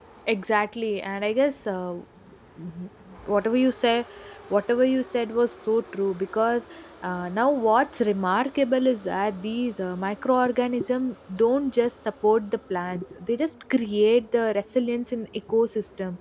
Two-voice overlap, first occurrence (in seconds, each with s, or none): none